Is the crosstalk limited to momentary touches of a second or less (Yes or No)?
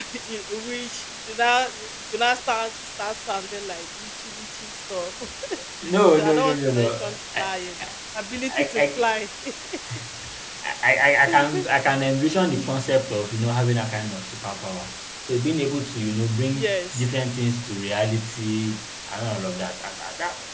No